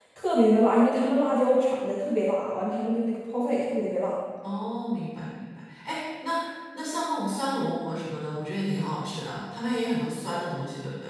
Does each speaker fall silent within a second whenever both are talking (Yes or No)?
Yes